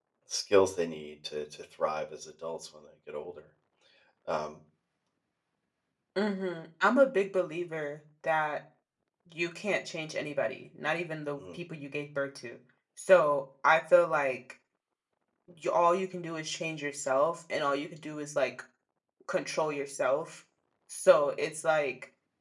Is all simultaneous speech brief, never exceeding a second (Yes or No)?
Yes